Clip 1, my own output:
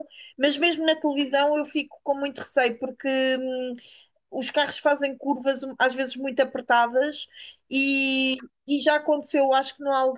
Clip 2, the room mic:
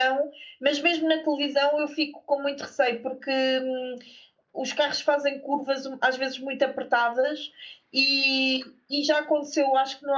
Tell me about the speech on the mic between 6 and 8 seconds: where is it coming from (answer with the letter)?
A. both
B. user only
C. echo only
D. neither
C